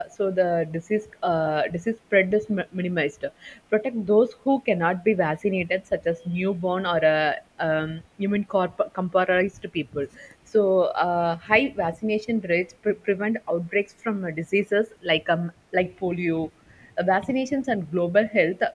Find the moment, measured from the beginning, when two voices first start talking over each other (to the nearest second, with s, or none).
none